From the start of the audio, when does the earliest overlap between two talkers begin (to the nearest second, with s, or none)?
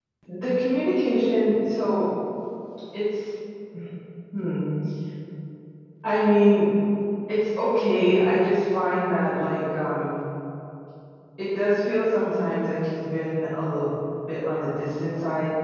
none